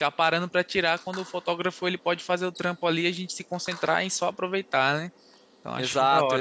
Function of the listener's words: taking over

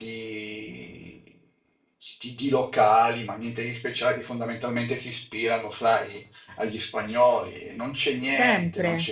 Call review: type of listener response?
taking over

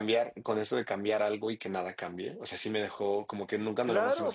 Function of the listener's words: taking over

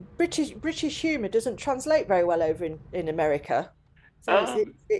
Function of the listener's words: listening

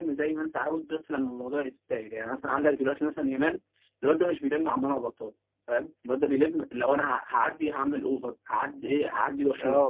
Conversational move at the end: taking over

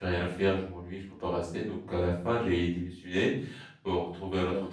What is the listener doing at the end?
listening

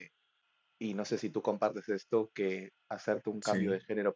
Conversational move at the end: listening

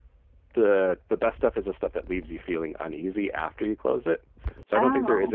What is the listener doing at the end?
listening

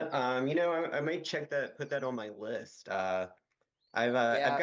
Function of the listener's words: taking over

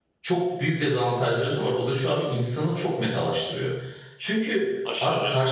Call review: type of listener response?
listening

